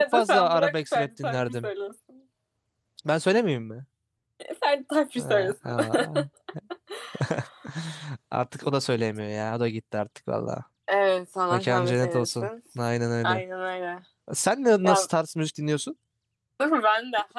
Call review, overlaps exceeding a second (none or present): present